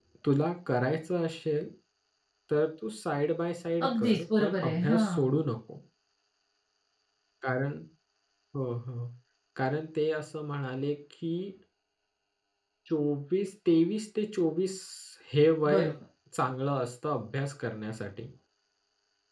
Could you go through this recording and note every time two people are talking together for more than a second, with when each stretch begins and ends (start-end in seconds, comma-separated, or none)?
3.9-5.3